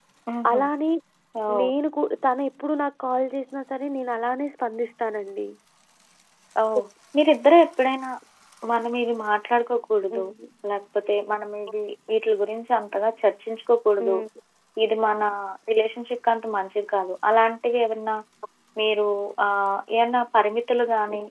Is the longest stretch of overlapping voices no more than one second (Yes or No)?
Yes